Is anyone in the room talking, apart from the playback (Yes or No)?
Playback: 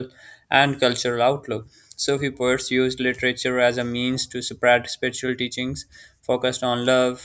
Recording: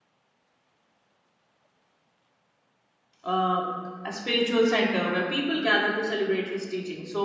Yes